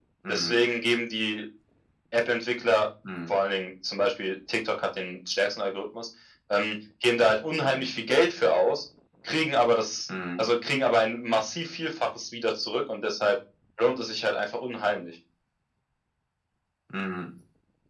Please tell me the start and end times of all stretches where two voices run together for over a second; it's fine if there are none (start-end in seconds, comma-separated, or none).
none